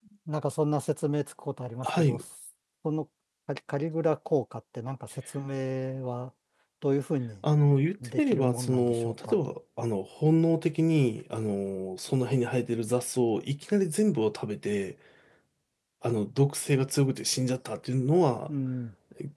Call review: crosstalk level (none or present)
present